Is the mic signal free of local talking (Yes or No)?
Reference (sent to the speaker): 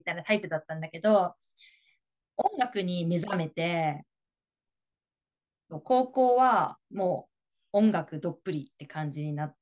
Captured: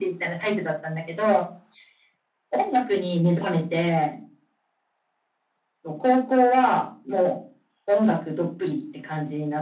Yes